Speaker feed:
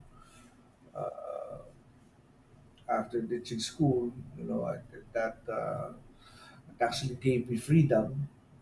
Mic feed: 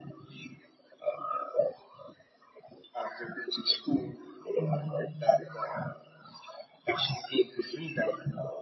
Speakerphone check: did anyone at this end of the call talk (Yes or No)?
Yes